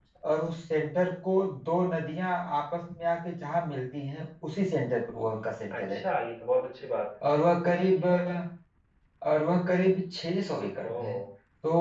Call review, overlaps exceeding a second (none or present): none